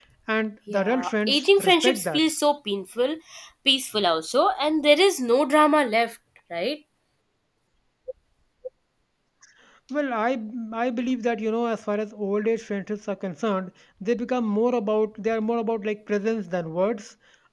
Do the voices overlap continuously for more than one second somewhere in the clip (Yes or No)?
Yes